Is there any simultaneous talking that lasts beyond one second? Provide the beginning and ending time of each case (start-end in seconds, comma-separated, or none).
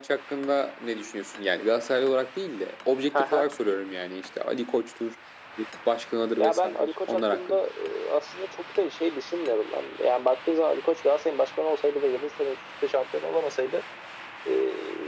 6.4-7.7